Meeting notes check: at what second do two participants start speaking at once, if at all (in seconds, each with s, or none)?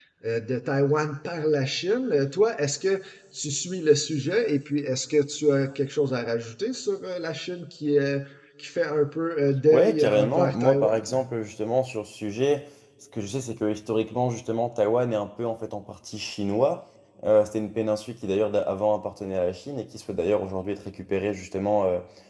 9.7 s